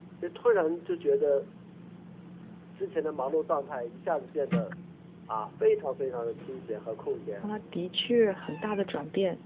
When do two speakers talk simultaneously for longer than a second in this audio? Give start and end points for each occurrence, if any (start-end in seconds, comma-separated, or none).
none